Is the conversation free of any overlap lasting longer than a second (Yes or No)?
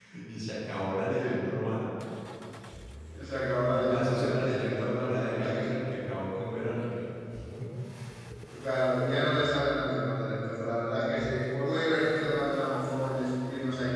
No